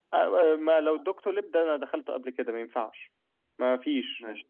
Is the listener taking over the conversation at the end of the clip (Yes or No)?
No